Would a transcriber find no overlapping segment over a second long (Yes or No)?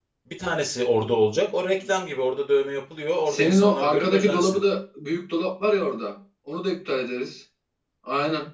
No